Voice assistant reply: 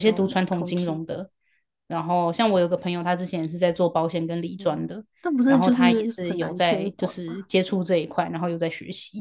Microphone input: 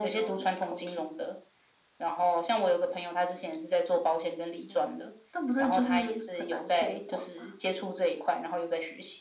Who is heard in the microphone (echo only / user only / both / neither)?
echo only